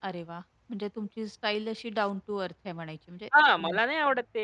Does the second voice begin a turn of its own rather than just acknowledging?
Yes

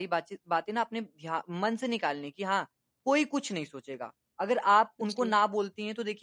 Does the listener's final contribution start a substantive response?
No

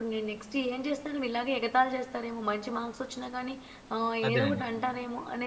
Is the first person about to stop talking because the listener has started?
No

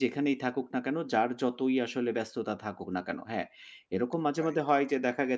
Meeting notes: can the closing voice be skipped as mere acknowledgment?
Yes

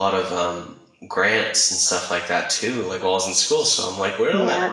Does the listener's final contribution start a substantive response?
Yes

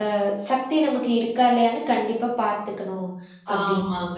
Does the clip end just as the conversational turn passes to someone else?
Yes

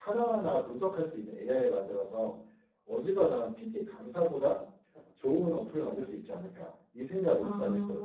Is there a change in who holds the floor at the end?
Yes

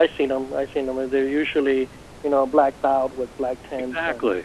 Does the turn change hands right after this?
Yes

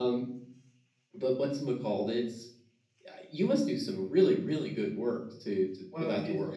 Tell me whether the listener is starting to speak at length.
Yes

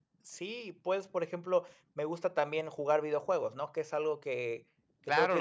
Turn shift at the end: Yes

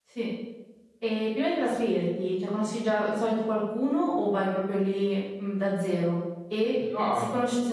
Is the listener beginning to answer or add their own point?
No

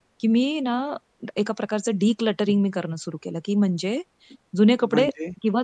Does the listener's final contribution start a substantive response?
No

